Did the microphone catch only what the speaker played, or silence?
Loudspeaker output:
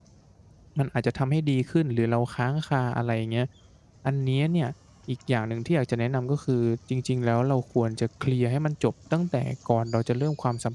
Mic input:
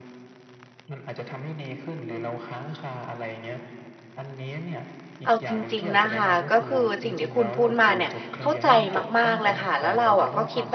No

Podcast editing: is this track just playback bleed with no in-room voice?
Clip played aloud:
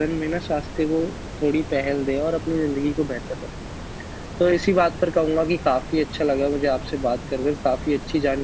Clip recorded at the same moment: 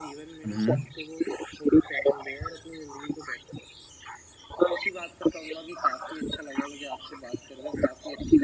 No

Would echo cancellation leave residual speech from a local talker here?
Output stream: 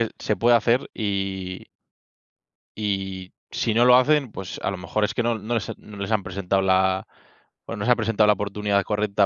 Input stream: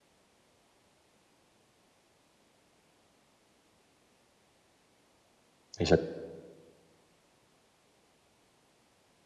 Yes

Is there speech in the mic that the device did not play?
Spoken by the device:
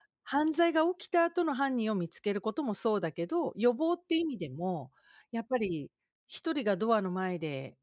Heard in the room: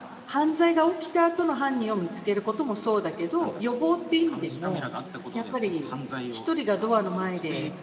Yes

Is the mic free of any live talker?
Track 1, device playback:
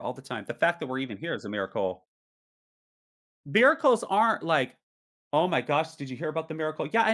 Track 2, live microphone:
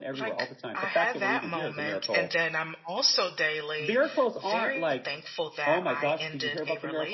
No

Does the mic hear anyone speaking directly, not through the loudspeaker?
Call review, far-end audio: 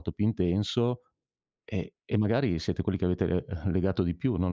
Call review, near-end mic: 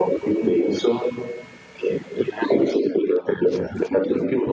No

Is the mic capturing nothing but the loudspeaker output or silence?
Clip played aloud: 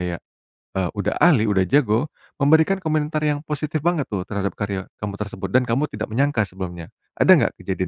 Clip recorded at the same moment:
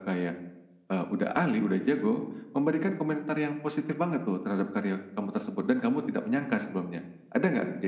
Yes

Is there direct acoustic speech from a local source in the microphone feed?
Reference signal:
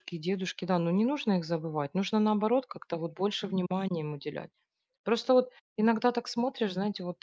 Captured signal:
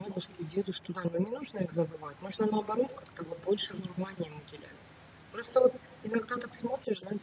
No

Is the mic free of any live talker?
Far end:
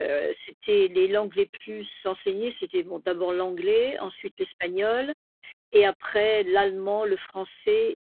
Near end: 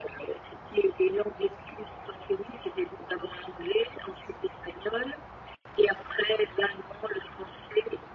Yes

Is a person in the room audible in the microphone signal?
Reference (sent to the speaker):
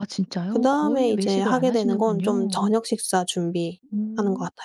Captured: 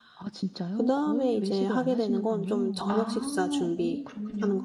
Yes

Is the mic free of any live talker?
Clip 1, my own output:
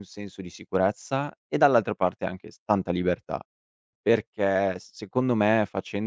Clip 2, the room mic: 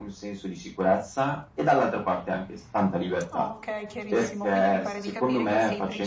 No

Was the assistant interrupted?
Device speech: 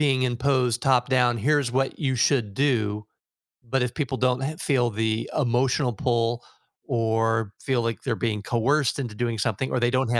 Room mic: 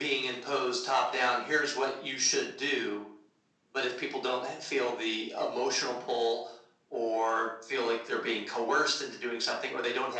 No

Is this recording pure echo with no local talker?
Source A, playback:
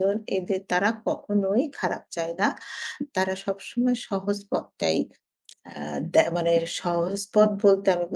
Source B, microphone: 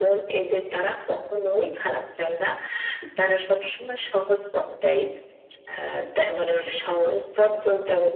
Yes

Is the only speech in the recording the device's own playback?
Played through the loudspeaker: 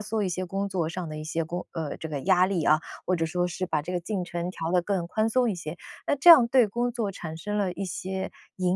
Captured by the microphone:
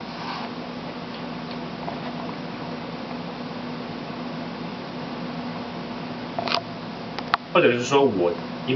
No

